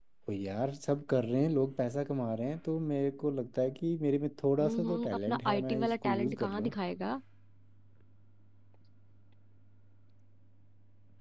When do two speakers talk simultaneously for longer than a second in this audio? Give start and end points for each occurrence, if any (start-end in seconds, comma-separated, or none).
4.6-6.7